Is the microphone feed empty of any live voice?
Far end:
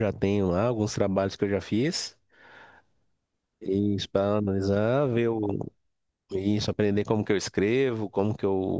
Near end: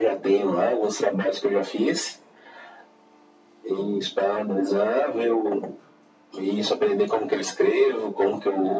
Yes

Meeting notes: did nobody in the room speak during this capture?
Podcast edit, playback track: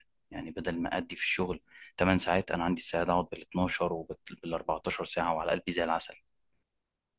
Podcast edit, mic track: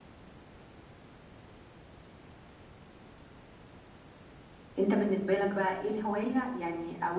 No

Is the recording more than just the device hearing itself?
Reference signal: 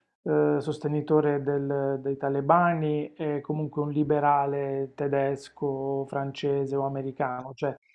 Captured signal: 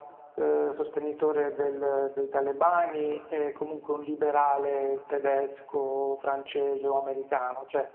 No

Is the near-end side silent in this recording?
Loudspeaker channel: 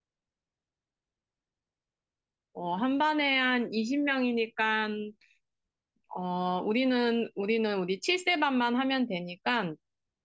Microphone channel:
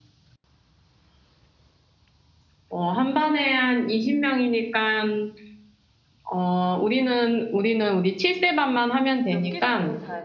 No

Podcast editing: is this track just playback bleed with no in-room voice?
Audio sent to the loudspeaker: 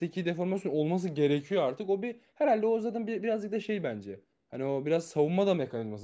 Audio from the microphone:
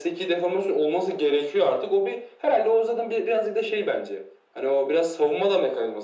Yes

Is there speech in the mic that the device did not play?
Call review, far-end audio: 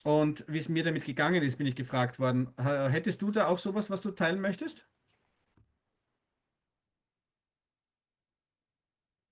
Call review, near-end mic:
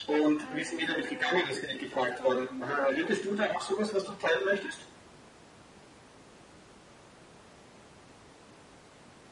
Yes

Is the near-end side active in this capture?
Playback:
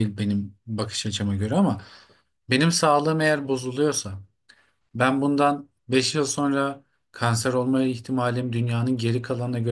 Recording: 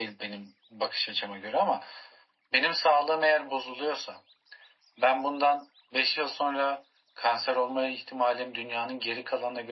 No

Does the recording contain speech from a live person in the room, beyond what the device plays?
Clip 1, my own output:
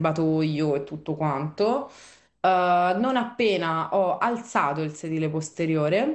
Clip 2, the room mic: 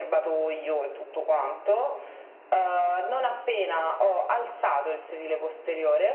No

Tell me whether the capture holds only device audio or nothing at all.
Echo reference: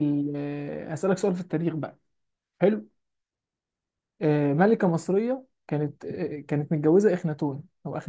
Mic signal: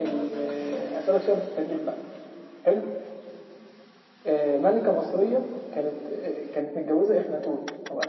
Yes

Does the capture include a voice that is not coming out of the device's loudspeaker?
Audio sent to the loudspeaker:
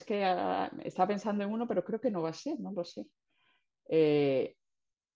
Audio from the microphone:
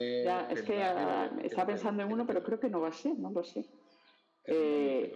Yes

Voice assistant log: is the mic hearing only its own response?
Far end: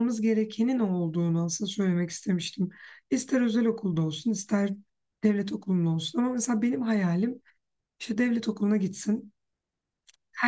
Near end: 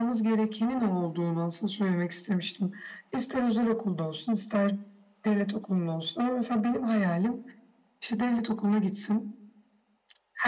Yes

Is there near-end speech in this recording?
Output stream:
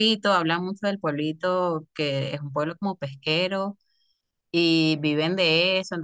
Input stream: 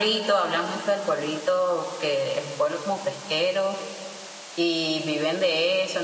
No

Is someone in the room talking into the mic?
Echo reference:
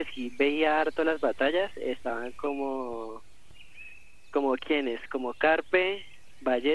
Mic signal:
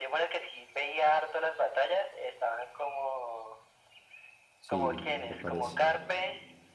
Yes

